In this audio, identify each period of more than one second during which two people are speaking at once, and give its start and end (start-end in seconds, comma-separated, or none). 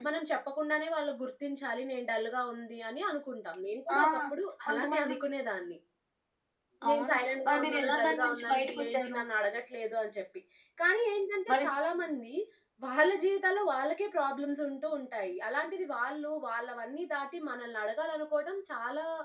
6.9-9.2